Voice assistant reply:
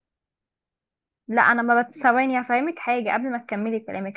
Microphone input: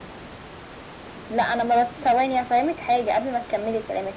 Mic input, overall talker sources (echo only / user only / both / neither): echo only